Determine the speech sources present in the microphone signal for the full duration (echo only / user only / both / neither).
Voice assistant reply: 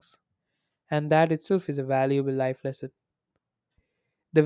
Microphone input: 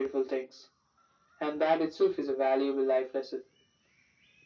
echo only